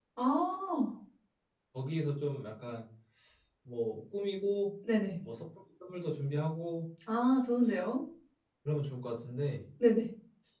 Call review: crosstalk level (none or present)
none